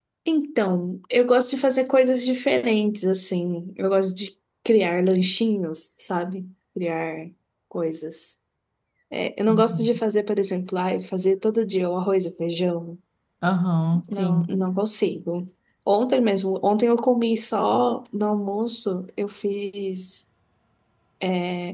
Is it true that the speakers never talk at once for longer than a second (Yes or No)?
Yes